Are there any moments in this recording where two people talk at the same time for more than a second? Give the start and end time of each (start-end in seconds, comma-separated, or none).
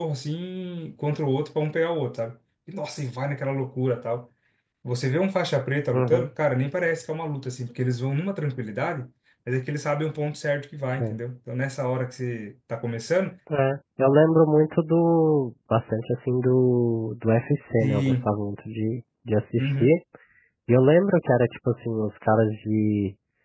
none